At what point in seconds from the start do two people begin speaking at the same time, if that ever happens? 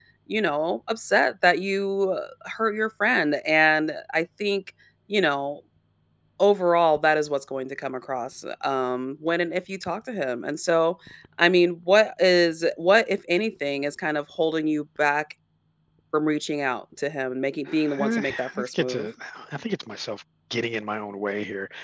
17.7 s

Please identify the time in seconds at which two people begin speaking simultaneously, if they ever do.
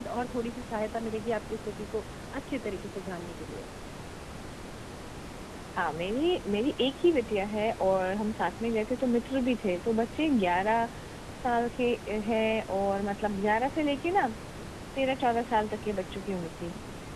none

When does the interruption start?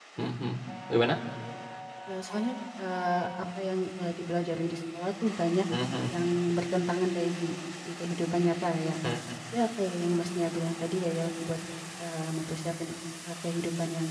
none

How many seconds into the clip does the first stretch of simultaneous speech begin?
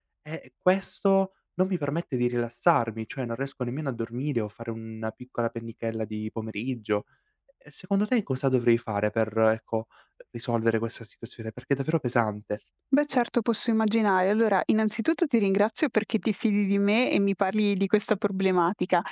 none

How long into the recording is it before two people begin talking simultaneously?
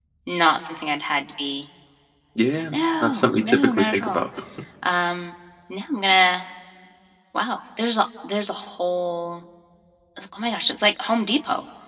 3.0 s

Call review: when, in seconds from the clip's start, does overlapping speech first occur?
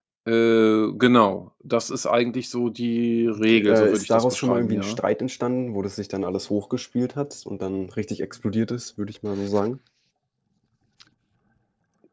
3.5 s

